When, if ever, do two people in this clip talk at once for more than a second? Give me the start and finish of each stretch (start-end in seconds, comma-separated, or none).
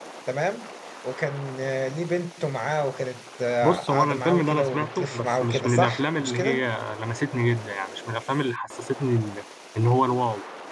3.6-6.6